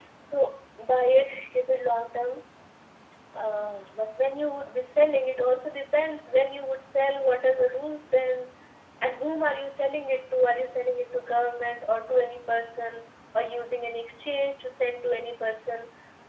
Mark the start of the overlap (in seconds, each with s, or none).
none